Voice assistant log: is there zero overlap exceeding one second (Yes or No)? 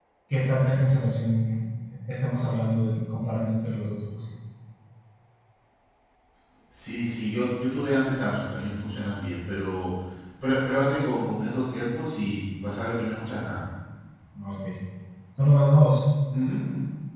Yes